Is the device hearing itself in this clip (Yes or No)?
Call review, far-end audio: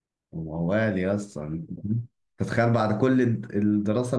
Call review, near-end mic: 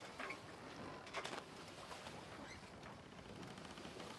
No